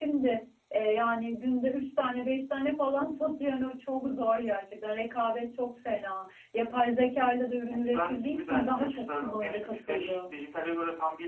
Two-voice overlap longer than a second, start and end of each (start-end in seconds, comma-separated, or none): 7.7-10.2